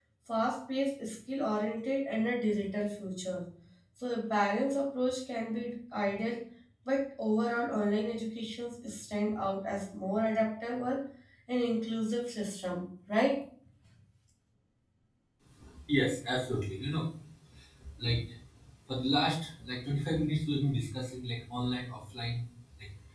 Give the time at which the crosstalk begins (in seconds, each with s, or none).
none